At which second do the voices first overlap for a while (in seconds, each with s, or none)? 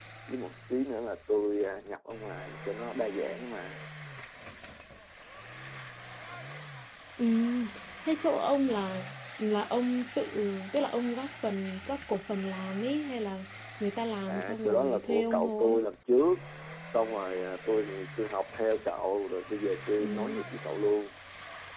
14.3 s